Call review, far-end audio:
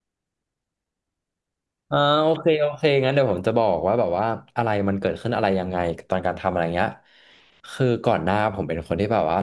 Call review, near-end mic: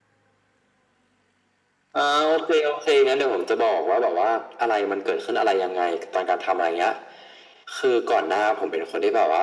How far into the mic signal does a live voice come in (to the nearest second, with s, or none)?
none